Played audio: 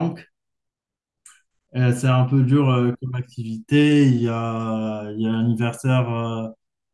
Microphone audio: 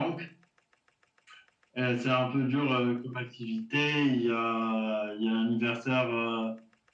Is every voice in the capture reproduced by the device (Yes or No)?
Yes